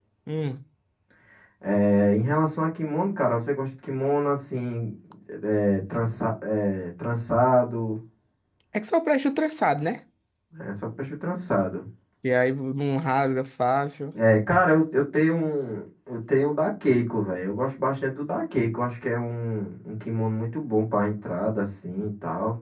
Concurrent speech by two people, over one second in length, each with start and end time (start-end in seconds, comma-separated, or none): none